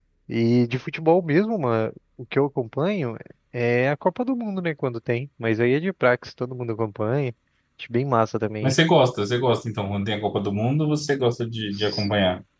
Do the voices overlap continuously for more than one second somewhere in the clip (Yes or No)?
No